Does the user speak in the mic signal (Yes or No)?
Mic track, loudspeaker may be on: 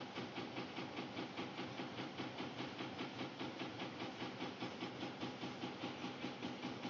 No